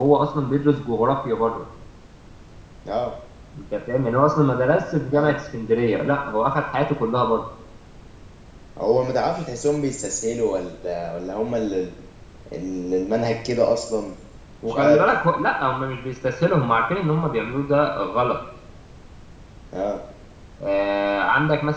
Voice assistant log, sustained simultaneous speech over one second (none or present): none